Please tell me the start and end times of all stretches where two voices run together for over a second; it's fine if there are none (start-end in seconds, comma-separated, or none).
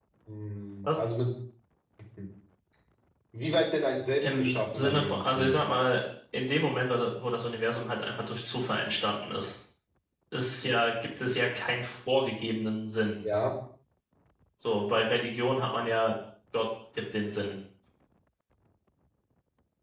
4.2-5.6